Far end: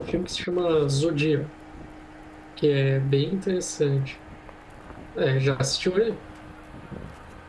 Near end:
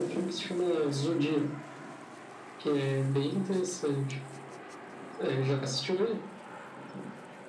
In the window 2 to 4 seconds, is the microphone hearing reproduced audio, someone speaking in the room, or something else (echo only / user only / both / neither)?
echo only